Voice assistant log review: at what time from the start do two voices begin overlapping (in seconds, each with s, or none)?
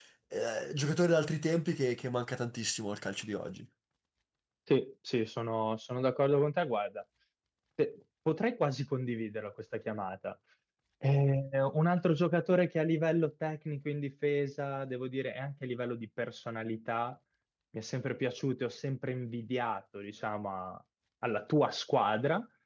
none